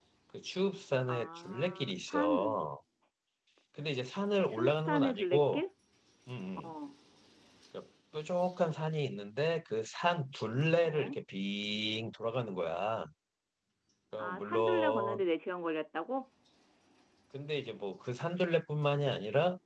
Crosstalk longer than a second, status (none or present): present